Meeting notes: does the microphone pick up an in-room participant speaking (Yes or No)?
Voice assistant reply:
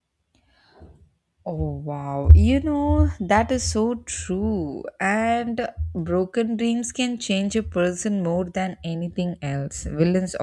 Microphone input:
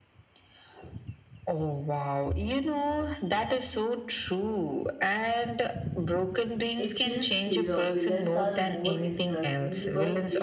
Yes